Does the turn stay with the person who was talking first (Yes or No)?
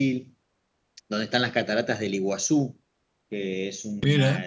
Yes